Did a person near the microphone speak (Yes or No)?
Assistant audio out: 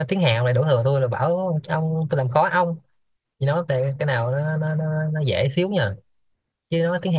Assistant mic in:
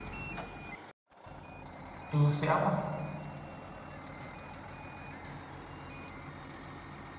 Yes